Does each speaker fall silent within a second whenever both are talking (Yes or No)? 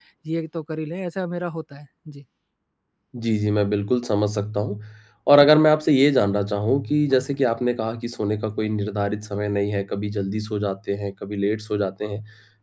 Yes